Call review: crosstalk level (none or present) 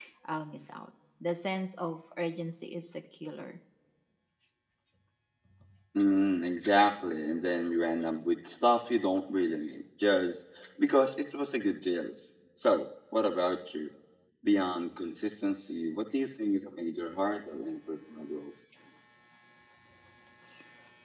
none